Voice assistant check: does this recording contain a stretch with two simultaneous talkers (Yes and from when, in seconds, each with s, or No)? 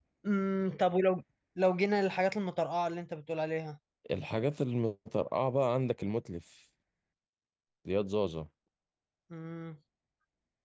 No